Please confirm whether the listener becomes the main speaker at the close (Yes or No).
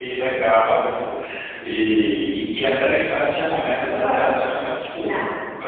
No